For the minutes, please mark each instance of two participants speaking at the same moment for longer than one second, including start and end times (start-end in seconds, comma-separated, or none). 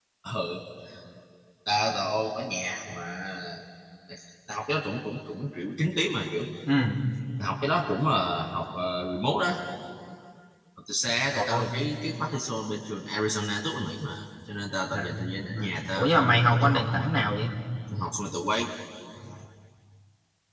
14.9-17.3